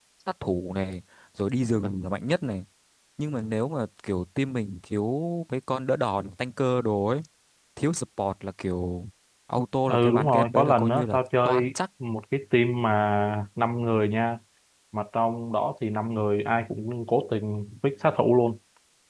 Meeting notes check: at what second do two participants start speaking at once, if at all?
9.9 s

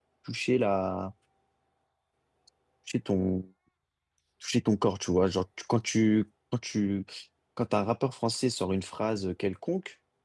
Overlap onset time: none

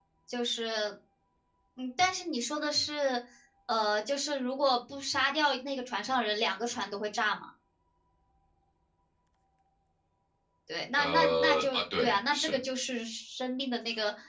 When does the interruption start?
11.0 s

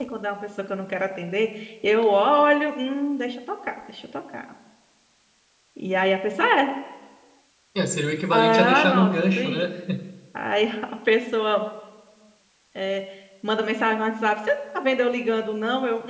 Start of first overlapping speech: 8.3 s

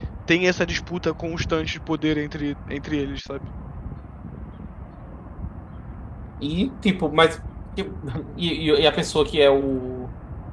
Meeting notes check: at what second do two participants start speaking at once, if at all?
none

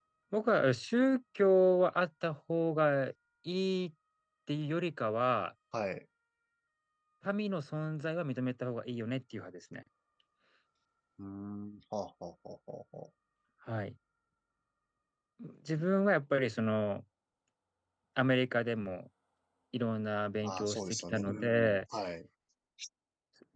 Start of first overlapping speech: 20.4 s

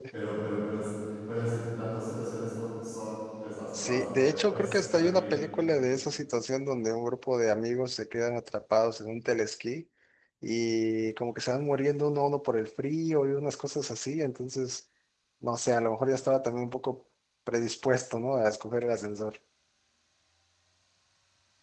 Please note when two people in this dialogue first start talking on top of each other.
3.7 s

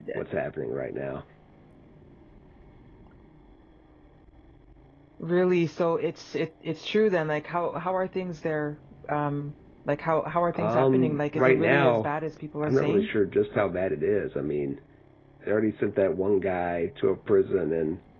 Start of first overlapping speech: 10.6 s

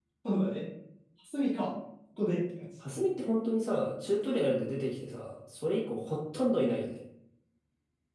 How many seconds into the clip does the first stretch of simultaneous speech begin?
none

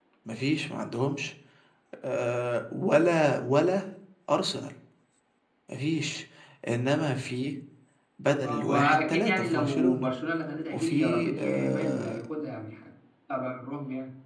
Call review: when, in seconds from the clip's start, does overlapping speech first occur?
8.4 s

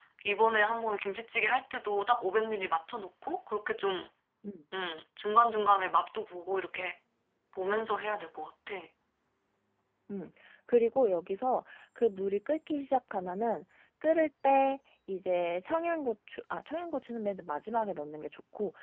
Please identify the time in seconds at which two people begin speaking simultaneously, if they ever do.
none

